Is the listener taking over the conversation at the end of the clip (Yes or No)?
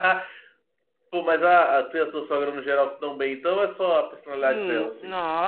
Yes